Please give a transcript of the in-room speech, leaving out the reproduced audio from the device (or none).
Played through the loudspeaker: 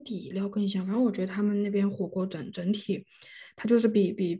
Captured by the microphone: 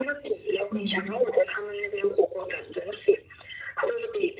嗯